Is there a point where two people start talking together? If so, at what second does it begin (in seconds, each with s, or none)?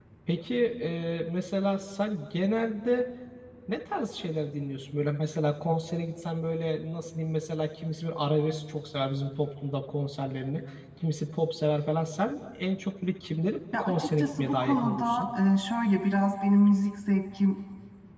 13.7 s